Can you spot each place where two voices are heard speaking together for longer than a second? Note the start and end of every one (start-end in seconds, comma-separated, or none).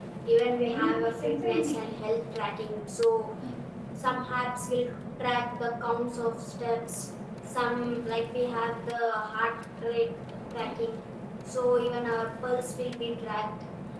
0.6-1.9